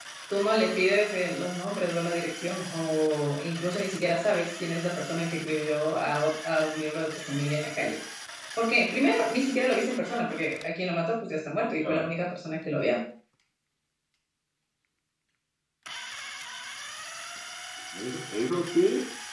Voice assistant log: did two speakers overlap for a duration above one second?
No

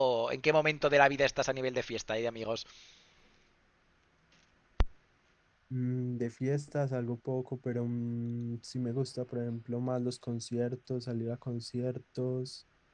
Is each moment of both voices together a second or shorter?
Yes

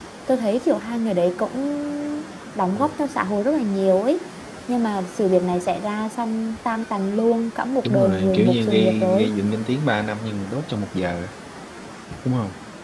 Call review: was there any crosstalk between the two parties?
Yes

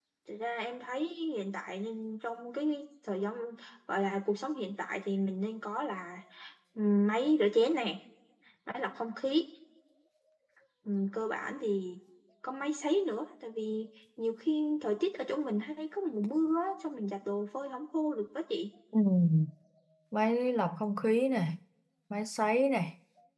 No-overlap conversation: Yes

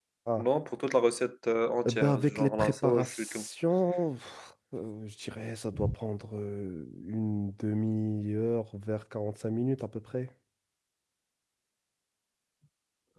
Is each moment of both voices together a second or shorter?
No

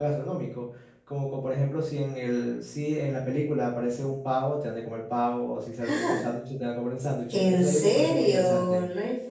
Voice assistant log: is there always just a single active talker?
No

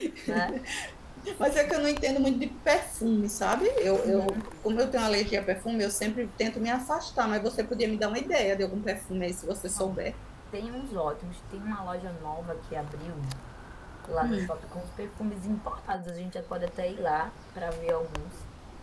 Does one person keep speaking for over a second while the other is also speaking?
No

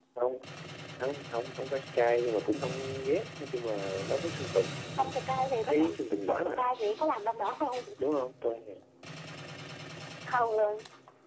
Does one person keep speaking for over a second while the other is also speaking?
No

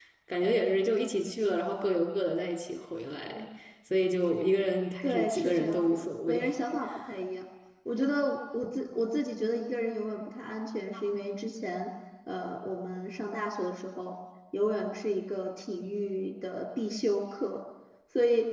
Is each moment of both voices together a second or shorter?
No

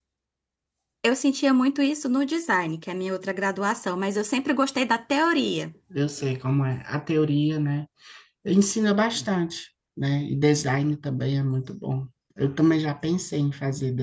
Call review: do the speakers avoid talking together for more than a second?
Yes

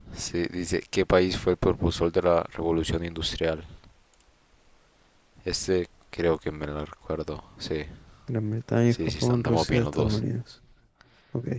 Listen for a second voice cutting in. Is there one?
Yes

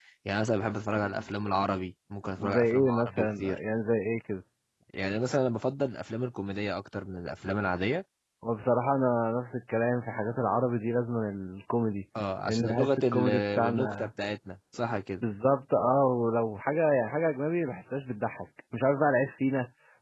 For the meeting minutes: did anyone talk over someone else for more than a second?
Yes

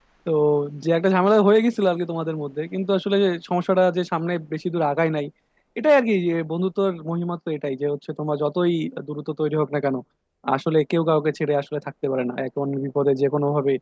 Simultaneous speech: No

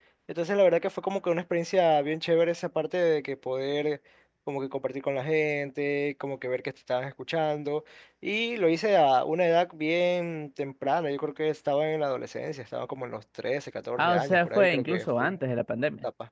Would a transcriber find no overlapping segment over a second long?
No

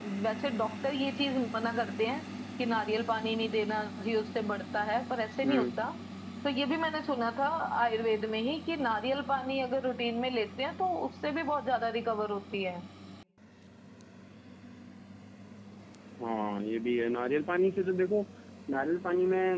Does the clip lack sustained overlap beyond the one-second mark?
Yes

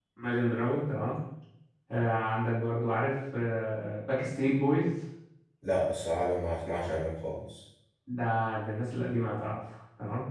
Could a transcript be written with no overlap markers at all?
Yes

